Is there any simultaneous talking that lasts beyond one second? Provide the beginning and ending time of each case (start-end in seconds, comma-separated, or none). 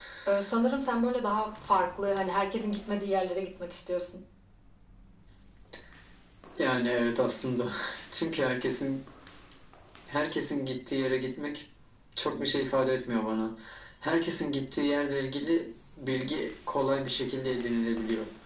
none